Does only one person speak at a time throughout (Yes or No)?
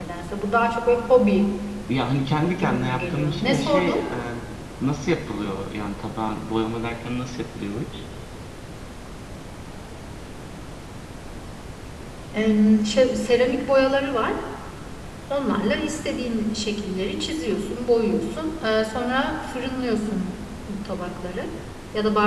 No